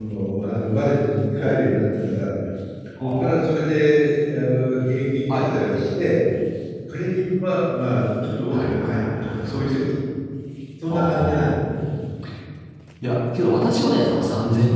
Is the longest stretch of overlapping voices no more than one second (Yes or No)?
No